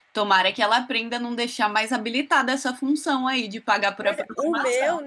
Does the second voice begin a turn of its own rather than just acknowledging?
Yes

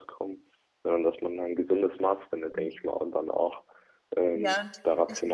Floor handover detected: No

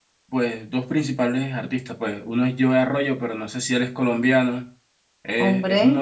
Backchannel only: Yes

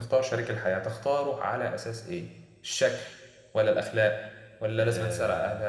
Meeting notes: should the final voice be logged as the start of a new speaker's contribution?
No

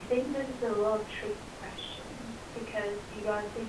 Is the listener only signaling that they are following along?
Yes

